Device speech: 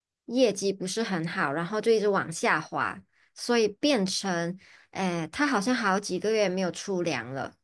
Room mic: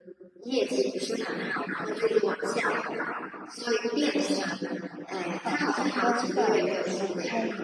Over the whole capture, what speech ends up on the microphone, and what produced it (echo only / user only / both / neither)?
both